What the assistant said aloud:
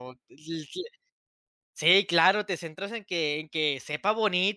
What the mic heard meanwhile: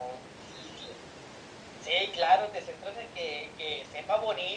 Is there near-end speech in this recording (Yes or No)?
No